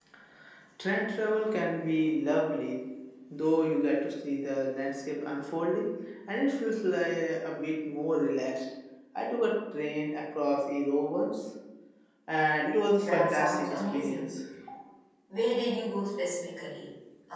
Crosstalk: present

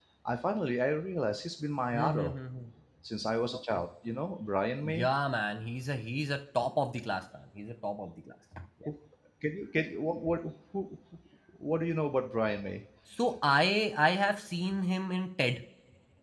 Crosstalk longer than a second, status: none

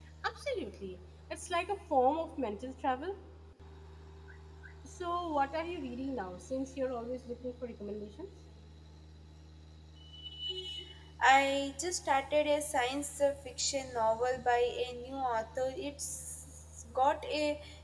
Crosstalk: none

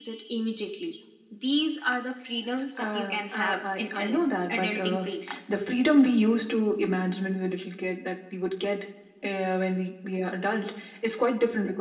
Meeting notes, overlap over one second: present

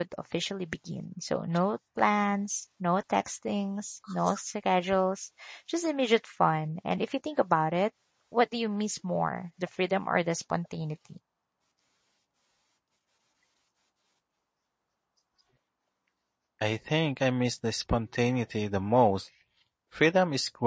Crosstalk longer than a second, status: none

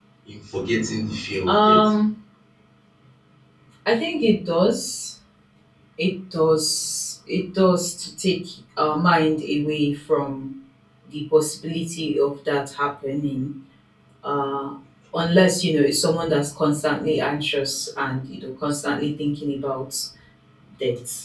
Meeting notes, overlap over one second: none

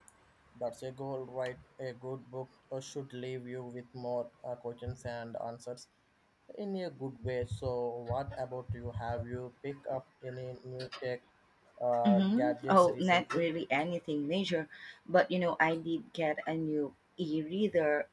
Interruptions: present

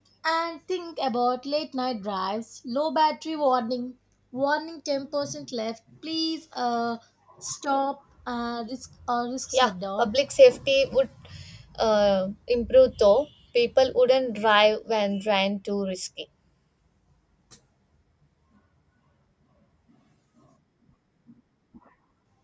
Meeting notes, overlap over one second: none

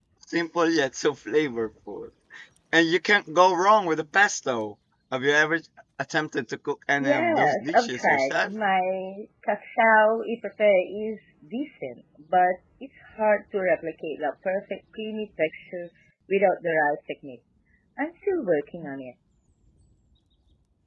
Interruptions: present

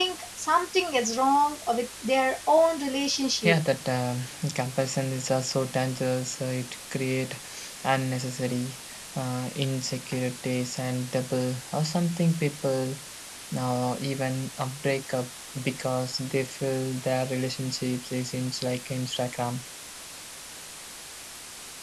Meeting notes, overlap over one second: none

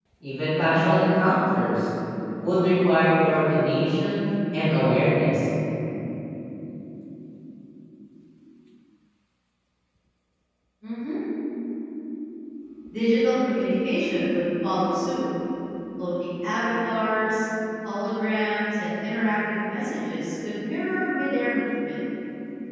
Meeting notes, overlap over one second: none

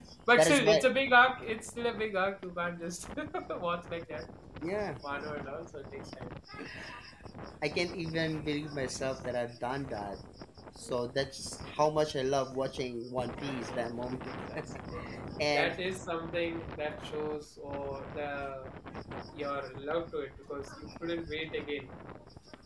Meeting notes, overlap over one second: none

